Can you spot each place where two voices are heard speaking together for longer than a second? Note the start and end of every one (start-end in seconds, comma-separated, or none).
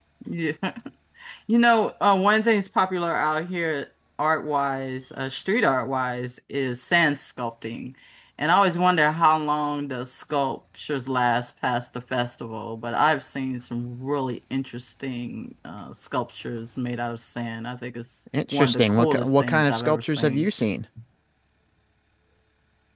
18.5-20.5